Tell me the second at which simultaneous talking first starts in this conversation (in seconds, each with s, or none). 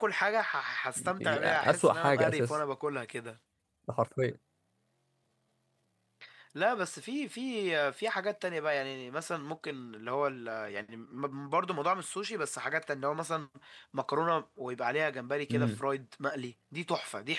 1.0 s